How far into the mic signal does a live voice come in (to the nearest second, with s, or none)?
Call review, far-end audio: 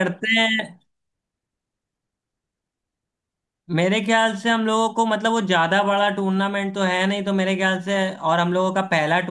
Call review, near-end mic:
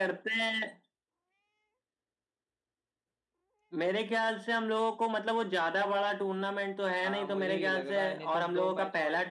7 s